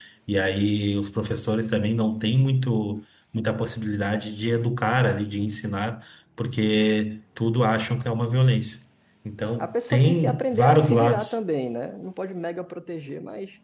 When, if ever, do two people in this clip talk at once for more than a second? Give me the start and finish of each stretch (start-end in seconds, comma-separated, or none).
9.6-11.4